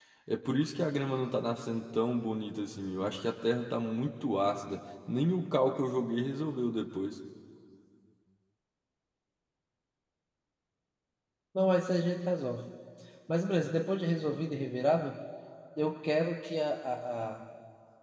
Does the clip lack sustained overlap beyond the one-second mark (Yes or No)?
Yes